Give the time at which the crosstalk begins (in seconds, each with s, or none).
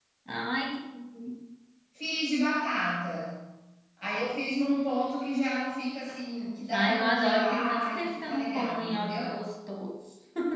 6.7 s